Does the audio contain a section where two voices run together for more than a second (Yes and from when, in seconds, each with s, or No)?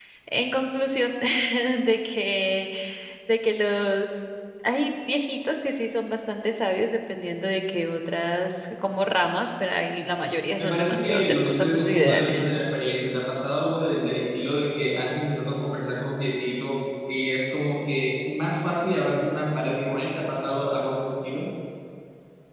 Yes, from 10.6 s